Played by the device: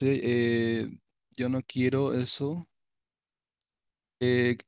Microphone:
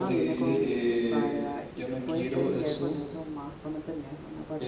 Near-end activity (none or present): present